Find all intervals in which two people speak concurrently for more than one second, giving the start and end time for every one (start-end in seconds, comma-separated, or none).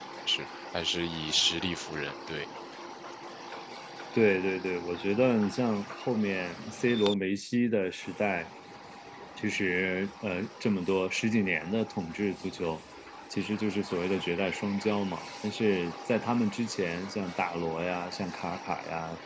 none